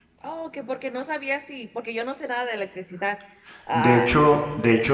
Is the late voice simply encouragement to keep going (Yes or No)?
No